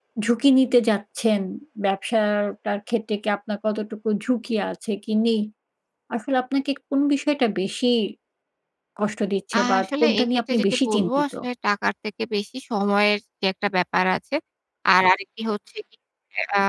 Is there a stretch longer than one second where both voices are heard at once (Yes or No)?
Yes